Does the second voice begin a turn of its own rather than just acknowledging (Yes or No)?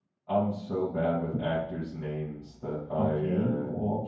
Yes